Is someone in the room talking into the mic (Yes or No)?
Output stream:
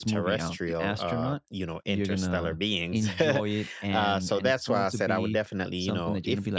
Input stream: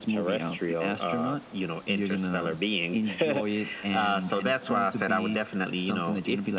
No